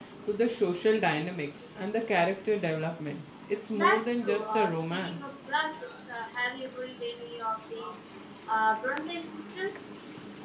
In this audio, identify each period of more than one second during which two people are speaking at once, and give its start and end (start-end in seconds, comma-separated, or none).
3.7-5.3